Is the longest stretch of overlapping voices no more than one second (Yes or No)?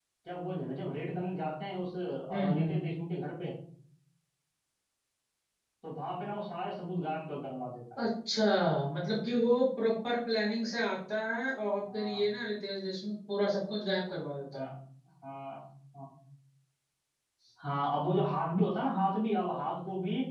Yes